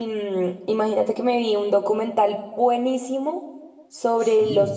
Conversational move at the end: listening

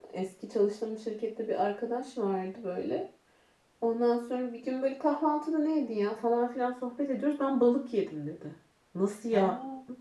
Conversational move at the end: listening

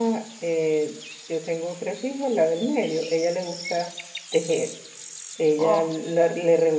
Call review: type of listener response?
listening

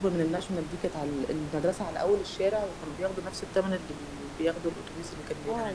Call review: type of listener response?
taking over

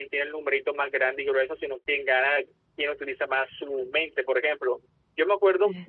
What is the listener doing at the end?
listening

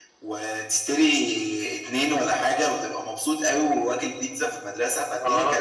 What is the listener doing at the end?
taking over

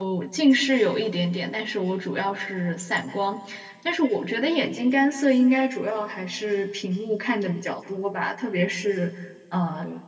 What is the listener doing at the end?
listening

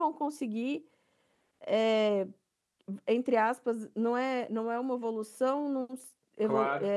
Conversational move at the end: listening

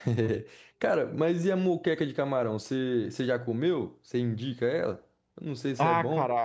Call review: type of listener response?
taking over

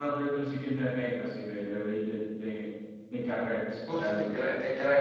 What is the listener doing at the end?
taking over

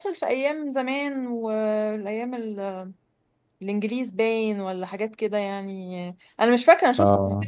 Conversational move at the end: listening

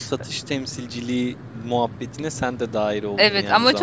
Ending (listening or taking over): taking over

